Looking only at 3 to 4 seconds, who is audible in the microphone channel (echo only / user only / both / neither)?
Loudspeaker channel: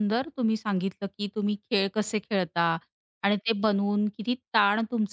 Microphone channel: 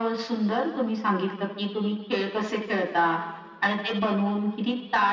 echo only